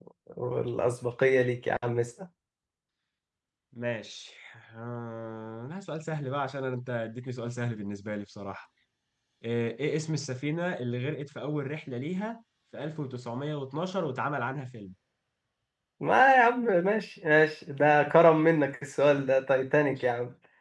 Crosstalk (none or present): none